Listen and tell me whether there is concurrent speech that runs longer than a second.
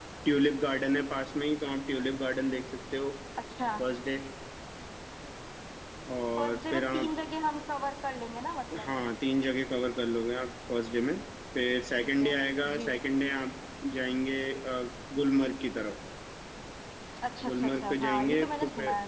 Yes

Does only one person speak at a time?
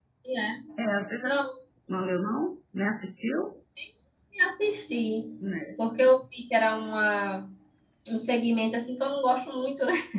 Yes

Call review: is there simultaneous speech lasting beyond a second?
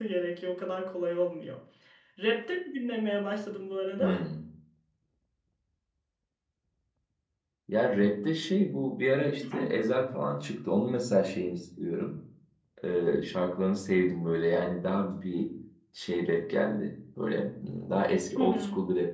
No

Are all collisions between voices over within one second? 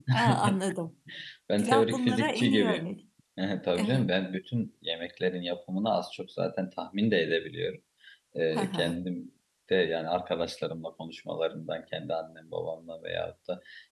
No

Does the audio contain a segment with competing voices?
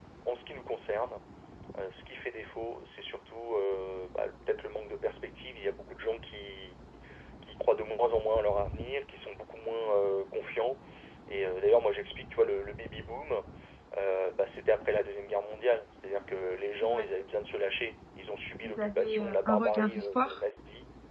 Yes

